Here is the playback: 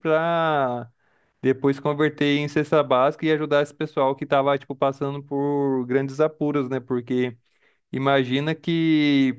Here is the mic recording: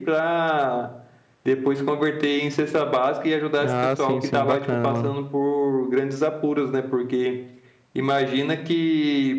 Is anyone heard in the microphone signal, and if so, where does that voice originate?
both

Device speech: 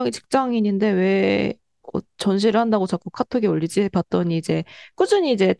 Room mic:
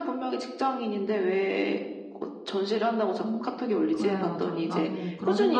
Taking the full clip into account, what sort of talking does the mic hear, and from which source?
both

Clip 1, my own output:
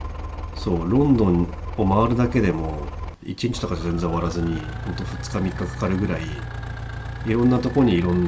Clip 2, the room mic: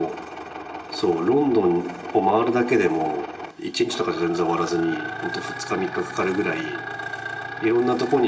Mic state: echo only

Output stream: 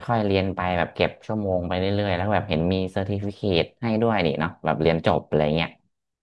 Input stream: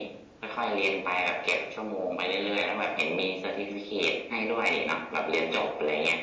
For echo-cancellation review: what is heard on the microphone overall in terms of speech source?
echo only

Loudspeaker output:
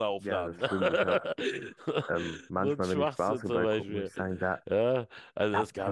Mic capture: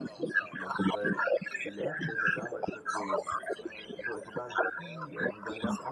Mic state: both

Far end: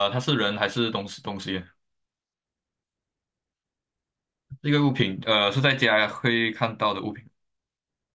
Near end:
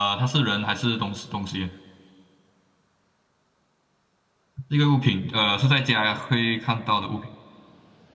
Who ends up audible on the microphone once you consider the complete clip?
echo only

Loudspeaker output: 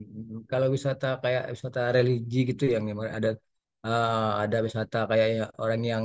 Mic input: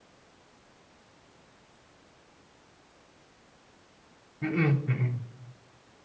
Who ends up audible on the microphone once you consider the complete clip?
user only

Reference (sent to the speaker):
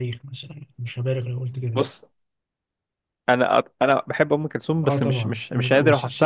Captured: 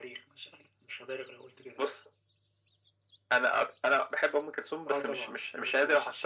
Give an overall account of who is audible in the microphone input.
echo only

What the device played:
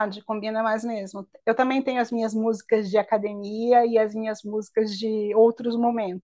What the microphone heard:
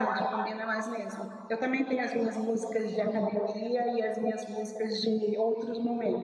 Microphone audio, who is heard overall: echo only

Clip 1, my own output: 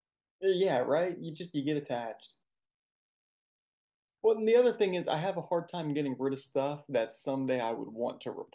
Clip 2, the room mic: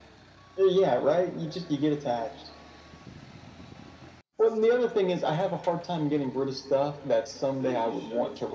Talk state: both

